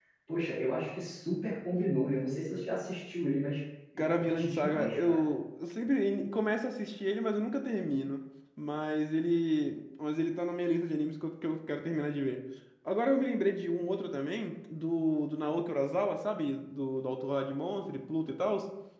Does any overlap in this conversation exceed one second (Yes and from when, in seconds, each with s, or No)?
Yes, from 4.0 s